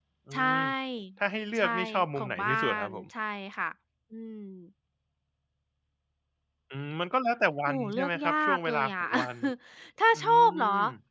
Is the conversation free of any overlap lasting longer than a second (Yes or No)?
No